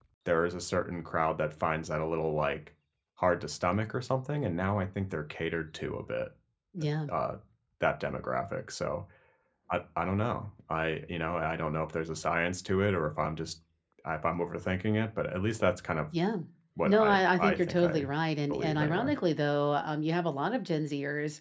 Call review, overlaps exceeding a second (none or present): present